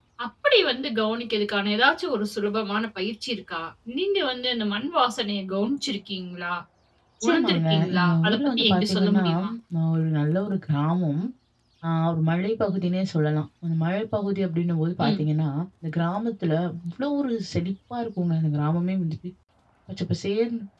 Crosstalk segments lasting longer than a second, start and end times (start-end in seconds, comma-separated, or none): 7.3-9.2